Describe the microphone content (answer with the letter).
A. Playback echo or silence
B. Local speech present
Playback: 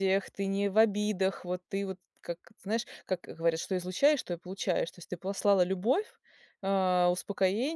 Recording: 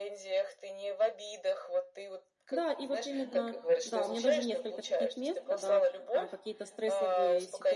B